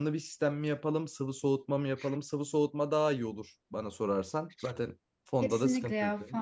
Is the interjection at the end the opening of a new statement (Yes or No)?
Yes